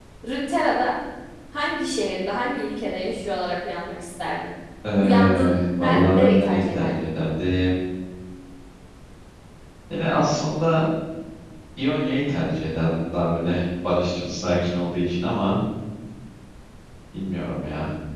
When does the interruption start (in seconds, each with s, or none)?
5.0 s